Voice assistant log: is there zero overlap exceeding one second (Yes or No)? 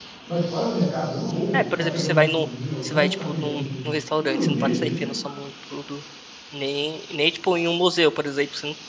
No